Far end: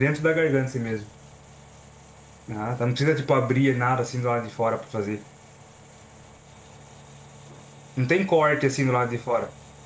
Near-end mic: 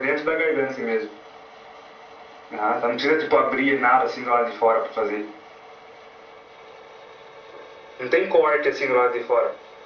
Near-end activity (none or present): none